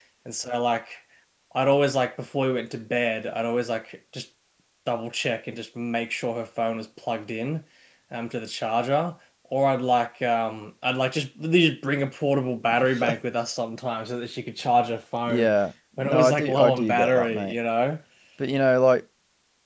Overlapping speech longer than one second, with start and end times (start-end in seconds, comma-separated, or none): 16.0-17.5